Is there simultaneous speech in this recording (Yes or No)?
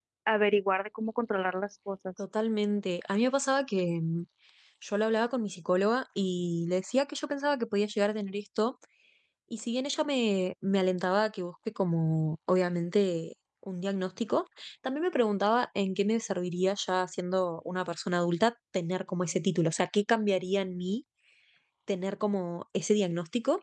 No